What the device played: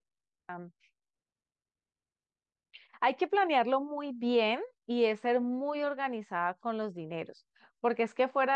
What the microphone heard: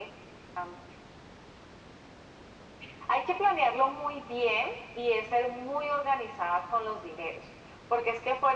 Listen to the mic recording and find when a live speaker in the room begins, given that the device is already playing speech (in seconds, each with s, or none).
none